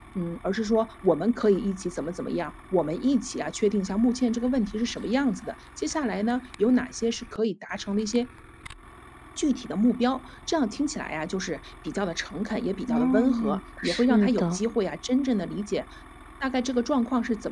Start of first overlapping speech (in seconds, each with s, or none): 12.9 s